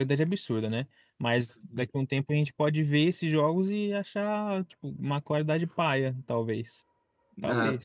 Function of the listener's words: taking over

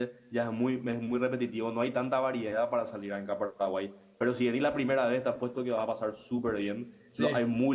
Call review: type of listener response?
listening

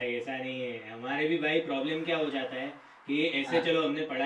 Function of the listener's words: listening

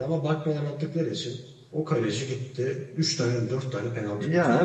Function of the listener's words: taking over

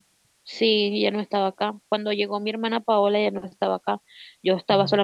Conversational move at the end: listening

